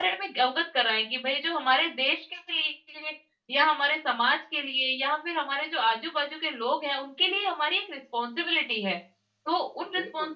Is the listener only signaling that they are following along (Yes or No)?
Yes